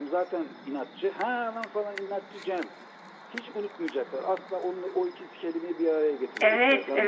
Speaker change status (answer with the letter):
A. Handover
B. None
A